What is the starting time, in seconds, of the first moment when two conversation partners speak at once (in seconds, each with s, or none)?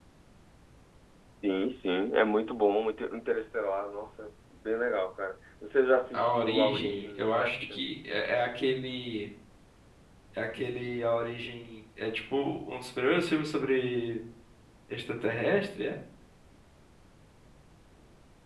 6.1 s